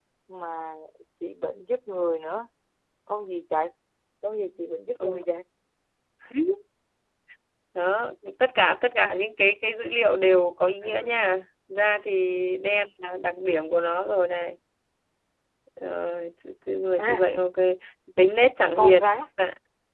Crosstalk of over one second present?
No

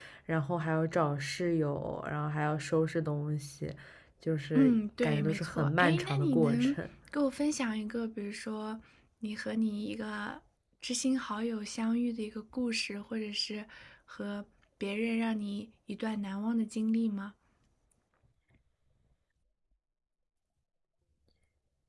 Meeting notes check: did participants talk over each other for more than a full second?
Yes, from 4.5 s

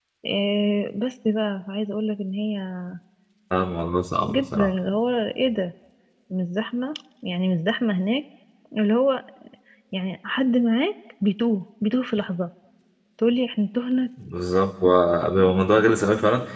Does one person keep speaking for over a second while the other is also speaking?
No

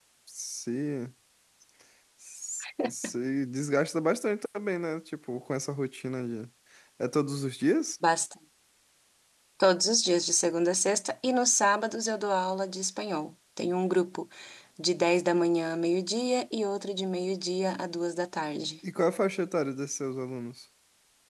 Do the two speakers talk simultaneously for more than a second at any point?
No

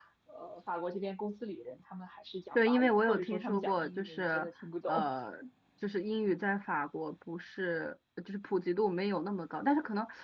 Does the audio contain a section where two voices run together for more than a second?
Yes, from 2.5 s

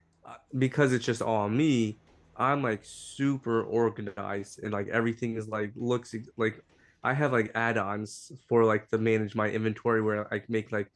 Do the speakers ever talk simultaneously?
No

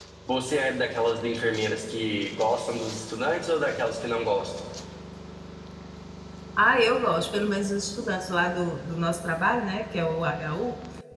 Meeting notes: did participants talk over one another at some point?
No

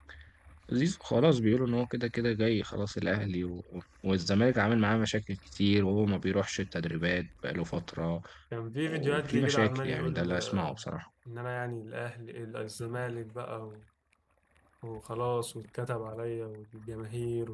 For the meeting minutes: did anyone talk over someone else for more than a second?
Yes, from 8.9 s

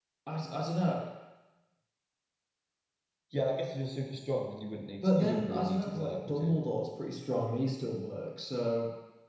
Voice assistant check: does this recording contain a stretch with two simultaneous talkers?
Yes, from 5.0 s

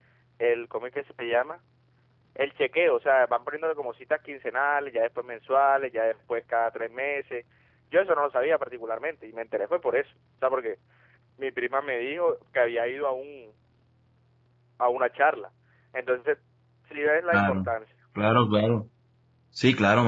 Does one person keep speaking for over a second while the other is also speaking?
No

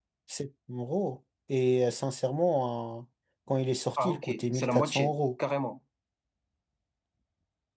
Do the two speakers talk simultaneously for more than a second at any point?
Yes, from 4.0 s

